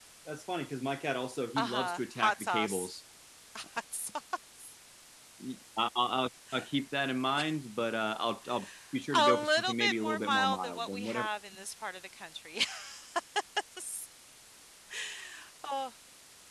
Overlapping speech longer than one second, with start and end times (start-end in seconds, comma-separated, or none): 1.6-2.9, 9.1-11.3